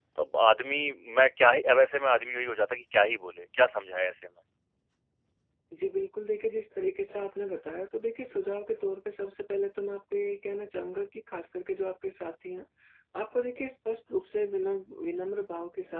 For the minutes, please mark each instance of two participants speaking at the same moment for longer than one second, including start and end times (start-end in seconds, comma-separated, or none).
none